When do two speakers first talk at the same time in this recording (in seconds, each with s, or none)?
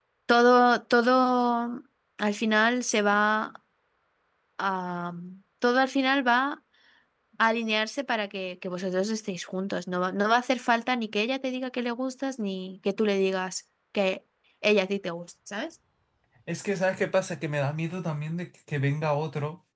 none